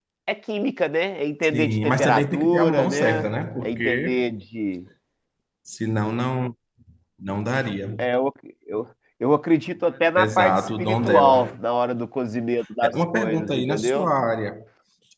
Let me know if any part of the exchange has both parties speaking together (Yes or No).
Yes